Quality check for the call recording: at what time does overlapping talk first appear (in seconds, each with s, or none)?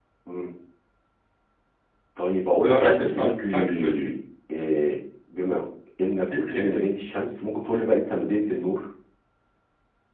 2.6 s